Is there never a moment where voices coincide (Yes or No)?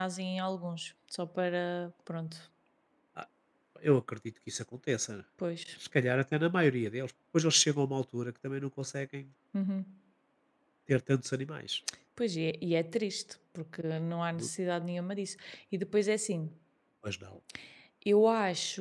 Yes